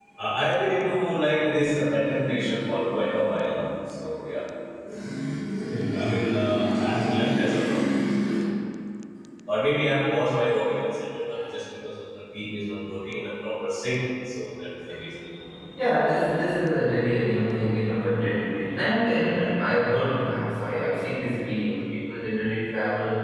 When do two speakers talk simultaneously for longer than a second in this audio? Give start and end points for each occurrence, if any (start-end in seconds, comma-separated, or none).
none